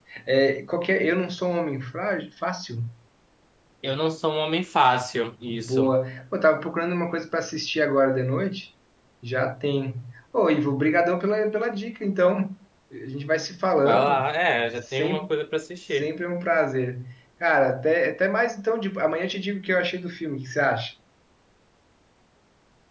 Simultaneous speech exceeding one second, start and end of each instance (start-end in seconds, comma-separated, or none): none